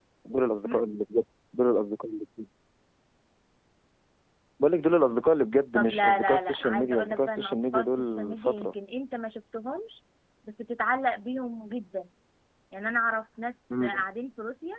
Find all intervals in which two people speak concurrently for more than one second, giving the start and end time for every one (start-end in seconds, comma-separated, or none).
5.7-8.7